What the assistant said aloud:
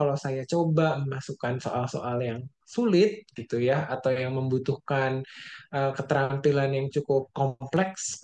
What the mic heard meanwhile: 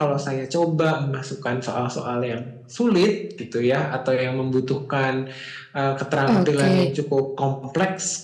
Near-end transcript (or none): oke.